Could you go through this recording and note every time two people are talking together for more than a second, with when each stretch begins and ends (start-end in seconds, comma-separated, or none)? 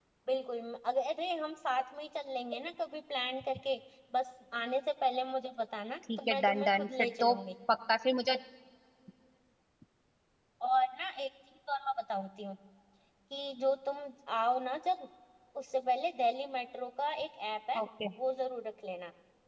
6.2-7.4